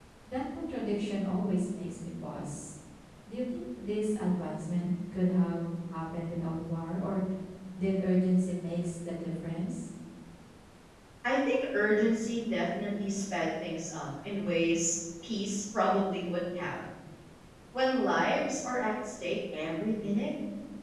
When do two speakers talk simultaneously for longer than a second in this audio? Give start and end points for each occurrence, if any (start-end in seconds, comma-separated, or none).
none